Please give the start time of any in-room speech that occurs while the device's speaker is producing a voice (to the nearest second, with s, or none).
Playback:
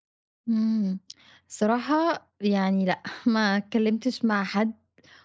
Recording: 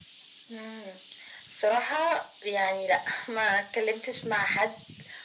none